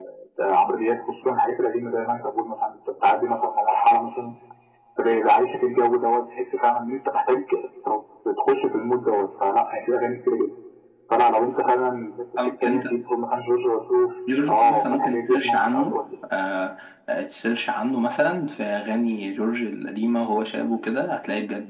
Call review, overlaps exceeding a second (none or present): present